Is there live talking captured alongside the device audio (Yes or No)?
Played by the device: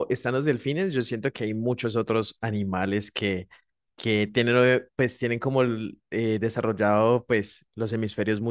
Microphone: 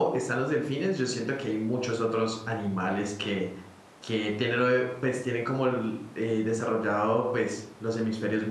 No